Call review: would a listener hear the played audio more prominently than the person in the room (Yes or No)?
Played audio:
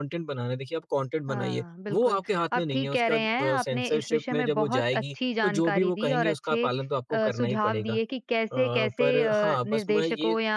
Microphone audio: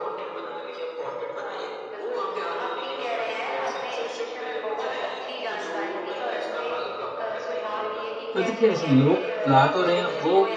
No